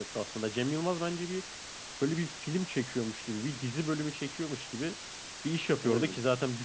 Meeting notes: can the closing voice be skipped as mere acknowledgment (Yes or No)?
Yes